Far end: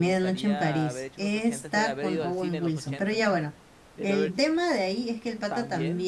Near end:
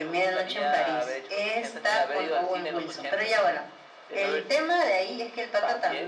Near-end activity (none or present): none